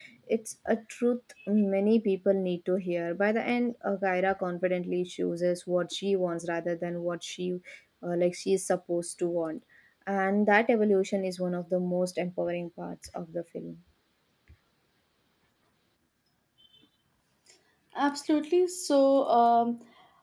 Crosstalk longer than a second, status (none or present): none